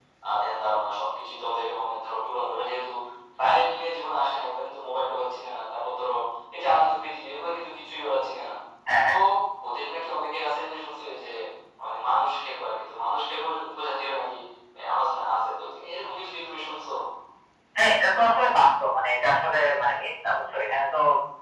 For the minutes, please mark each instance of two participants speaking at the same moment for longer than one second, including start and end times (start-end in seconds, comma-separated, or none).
none